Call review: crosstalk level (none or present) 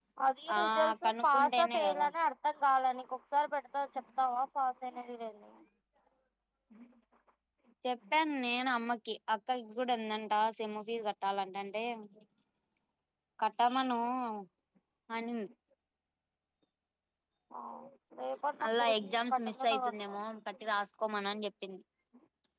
present